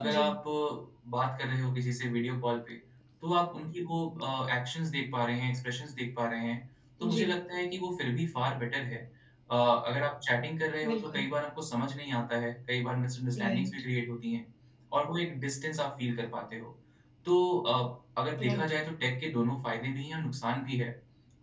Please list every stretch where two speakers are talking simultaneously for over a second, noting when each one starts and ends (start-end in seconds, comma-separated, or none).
none